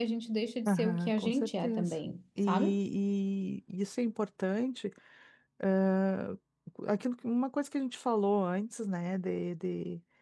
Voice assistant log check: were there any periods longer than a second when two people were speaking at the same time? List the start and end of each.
0.7-1.9

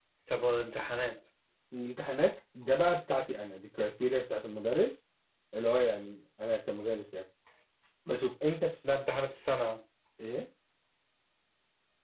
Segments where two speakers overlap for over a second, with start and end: none

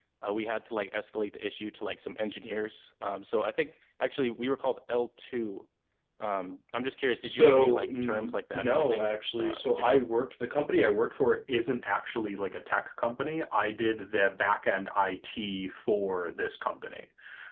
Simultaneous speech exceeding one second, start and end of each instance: 7.2-10.0

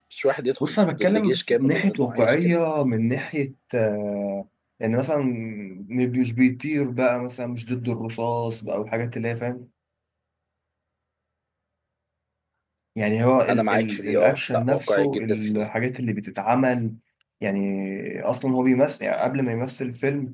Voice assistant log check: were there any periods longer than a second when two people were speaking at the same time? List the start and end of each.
0.7-2.5, 13.5-15.6

